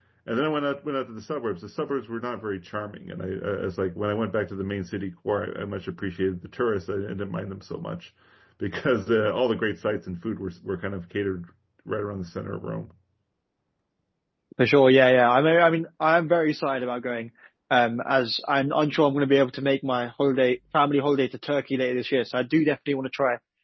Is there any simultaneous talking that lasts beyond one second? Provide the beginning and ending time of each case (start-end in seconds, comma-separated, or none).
none